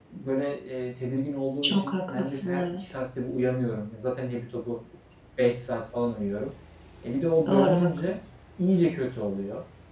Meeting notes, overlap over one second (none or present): present